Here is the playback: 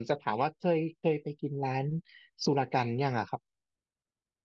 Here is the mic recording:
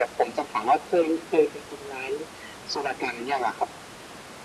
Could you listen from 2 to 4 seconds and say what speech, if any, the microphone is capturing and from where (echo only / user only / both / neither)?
echo only